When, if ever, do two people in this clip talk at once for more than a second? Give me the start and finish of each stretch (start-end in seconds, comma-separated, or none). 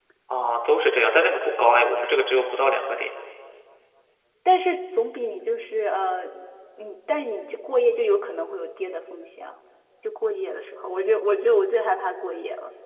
none